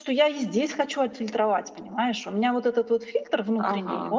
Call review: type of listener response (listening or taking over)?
listening